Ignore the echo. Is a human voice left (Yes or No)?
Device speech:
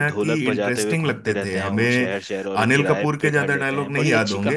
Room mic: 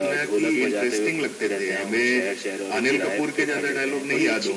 No